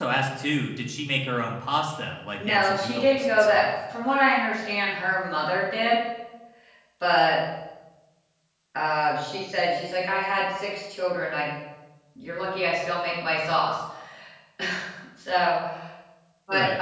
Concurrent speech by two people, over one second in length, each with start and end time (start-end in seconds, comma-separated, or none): 2.4-3.7